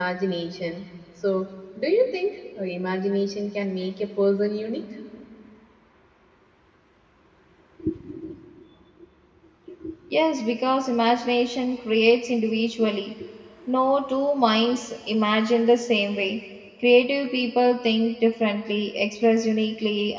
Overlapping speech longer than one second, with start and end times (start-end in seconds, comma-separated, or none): none